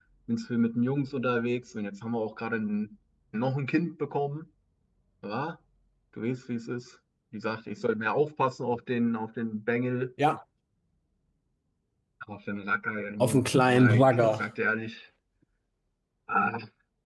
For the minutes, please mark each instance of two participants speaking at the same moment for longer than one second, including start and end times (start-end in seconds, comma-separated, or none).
13.2-14.4